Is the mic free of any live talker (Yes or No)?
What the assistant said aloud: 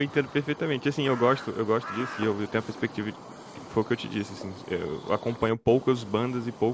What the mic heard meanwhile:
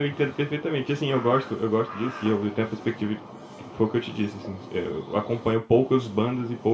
Yes